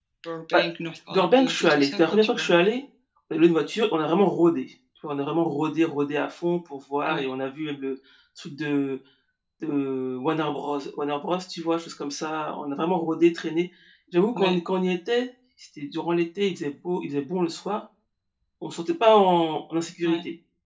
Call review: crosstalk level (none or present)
present